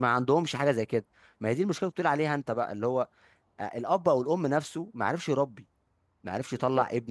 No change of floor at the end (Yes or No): Yes